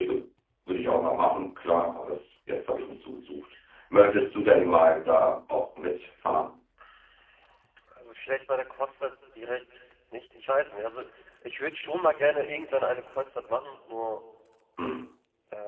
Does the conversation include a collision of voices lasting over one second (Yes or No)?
No